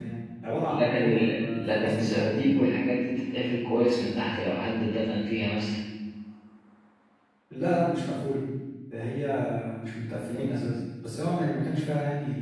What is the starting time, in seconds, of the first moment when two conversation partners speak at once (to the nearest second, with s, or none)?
1 s